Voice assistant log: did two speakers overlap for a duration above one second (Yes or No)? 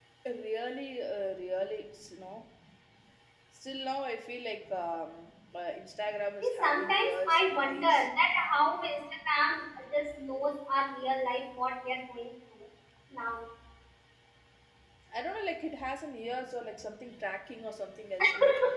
Yes